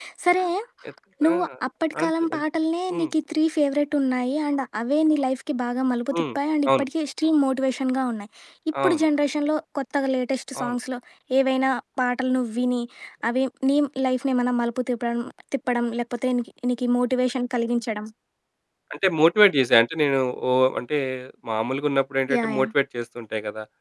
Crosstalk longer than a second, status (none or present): none